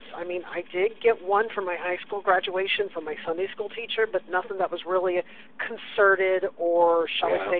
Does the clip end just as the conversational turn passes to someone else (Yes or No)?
Yes